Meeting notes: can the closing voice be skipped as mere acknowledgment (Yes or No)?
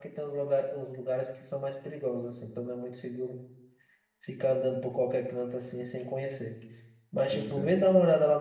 Yes